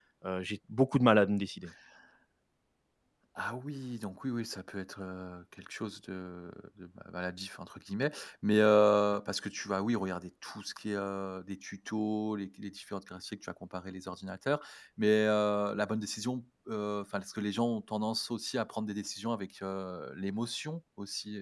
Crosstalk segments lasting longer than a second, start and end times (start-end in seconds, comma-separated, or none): none